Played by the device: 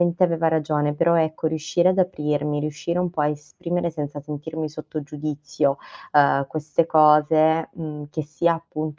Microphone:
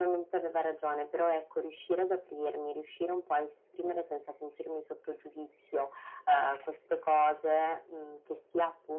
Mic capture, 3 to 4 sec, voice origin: echo only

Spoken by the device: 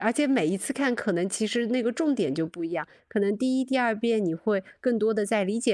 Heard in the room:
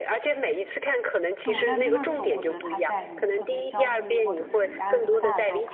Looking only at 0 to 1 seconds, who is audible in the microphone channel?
echo only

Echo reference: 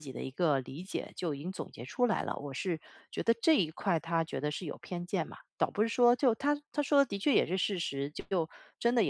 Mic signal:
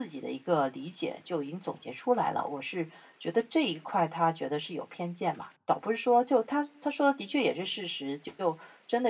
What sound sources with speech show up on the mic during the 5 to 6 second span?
echo only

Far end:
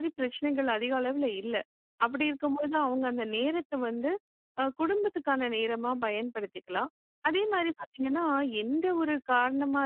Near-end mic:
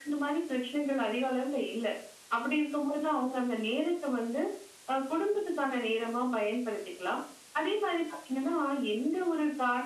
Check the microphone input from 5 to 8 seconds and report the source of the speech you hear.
echo only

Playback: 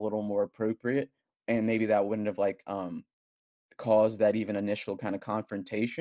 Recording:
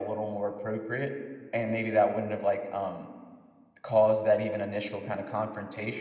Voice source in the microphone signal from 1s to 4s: echo only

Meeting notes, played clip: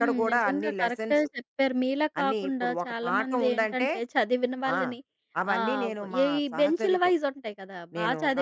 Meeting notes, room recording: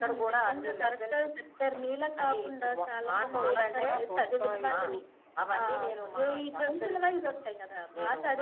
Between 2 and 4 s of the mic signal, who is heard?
both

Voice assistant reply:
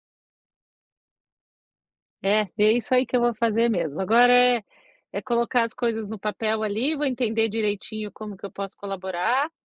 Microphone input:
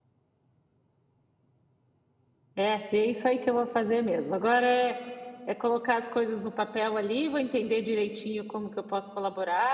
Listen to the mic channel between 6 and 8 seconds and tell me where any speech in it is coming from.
echo only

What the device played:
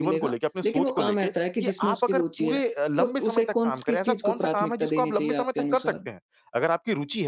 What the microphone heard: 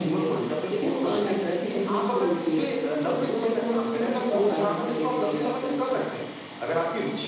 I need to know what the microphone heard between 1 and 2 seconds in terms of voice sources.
echo only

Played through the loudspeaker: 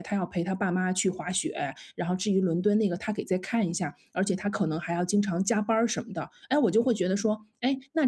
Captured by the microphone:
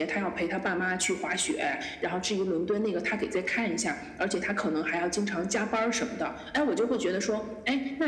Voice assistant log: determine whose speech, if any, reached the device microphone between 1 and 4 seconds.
echo only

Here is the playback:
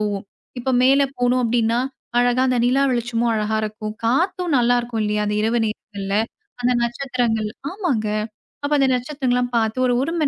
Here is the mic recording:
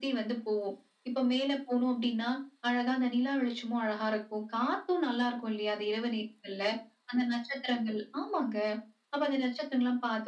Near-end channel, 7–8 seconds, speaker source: echo only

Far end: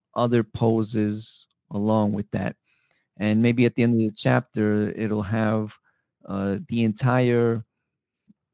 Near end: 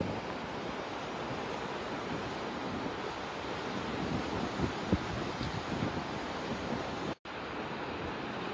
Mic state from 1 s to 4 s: neither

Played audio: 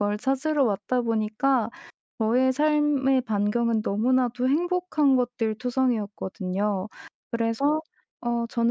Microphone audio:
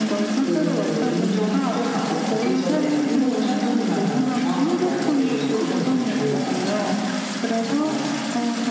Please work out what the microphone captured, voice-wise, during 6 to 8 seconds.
both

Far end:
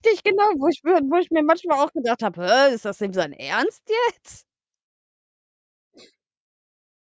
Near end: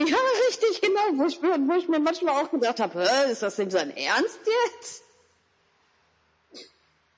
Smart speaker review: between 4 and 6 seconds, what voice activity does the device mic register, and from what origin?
echo only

